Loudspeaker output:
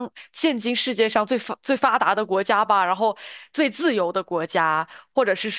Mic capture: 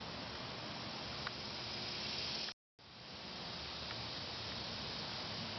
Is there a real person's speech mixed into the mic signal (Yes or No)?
No